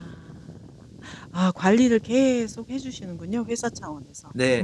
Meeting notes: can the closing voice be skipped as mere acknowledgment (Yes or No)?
No